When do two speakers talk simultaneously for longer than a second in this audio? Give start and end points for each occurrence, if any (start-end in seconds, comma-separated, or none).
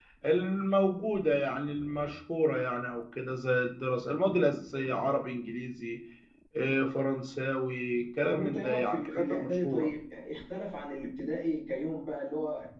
8.3-9.9